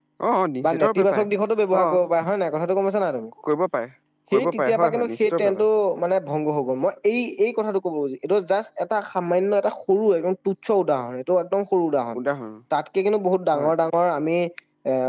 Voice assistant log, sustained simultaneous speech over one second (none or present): present